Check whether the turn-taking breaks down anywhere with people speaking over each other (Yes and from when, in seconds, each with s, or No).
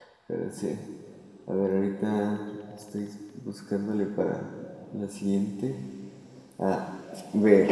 No